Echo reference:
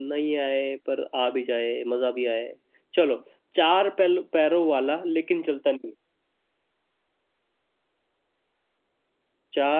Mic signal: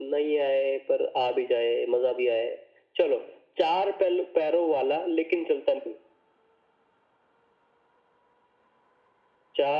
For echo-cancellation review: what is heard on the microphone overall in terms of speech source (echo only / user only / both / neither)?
echo only